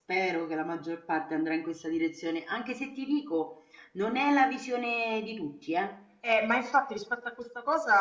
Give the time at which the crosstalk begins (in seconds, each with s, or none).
none